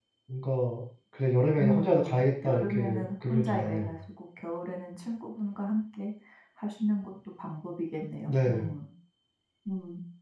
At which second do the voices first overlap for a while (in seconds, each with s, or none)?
1.6 s